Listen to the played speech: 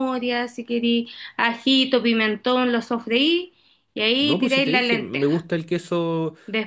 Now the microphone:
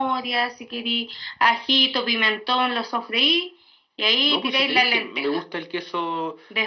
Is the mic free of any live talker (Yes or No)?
Yes